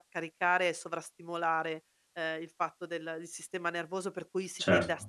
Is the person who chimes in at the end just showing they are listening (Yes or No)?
Yes